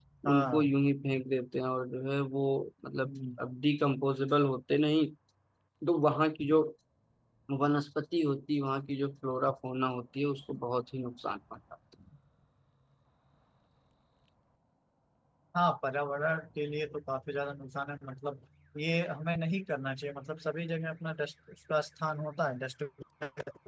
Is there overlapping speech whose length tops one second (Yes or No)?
No